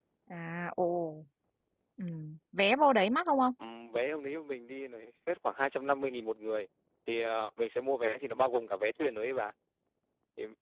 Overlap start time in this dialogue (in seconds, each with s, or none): none